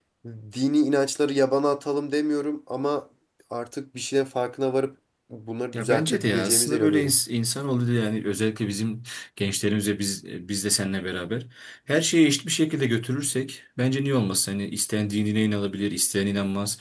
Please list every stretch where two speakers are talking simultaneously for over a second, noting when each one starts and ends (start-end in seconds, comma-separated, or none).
5.7-7.2